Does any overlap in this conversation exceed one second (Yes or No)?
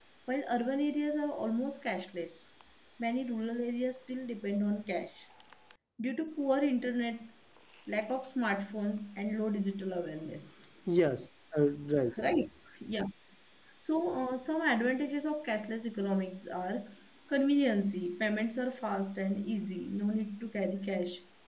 No